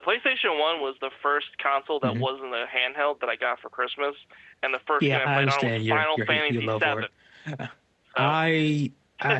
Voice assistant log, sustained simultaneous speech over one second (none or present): present